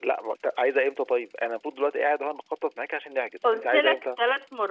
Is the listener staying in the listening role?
No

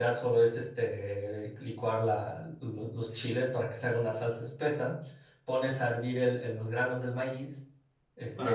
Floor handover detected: Yes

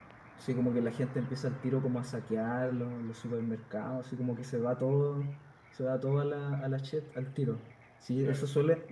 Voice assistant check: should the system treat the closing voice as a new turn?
No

